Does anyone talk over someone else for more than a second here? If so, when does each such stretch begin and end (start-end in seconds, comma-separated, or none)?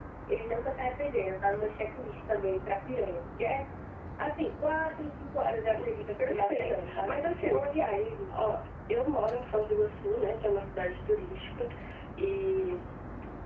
6.2-7.6